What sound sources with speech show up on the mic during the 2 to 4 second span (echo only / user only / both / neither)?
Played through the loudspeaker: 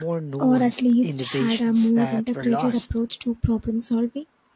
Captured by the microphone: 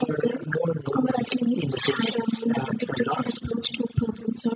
echo only